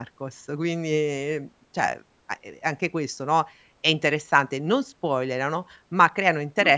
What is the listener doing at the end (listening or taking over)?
listening